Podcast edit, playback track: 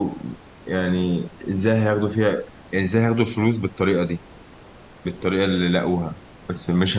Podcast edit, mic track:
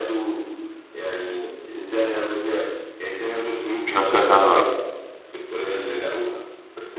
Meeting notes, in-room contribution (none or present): present